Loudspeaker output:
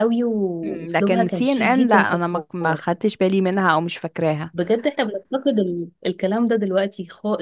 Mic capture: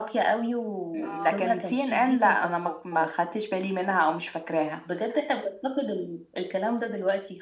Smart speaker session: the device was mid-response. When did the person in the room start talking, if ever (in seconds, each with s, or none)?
1.0 s